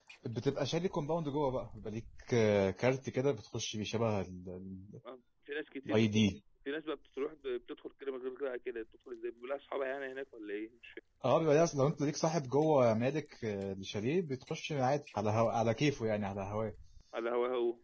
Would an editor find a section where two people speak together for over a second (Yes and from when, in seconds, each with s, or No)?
No